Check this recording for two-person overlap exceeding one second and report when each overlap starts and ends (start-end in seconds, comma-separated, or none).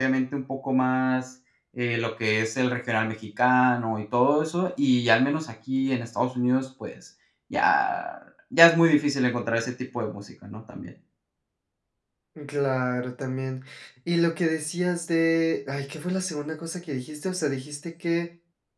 none